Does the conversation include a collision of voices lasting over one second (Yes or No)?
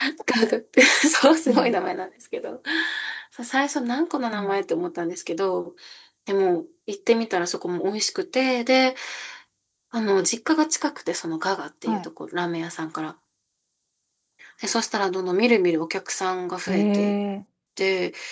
No